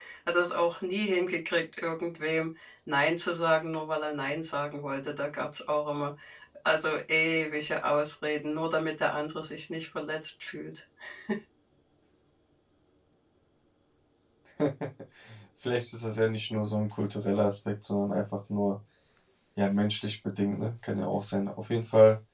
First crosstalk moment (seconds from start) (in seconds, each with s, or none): none